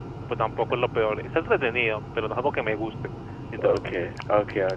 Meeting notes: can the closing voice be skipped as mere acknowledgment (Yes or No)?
No